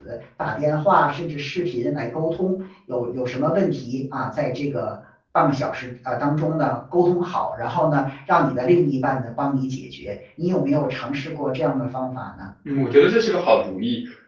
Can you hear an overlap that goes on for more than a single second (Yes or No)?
No